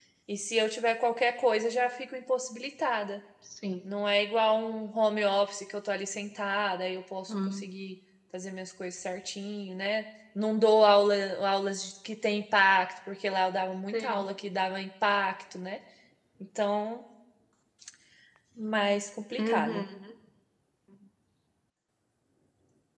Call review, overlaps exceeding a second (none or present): none